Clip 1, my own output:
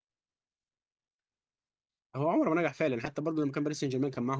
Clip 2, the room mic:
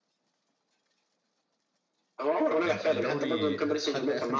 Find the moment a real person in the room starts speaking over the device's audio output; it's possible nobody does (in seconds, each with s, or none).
2.6 s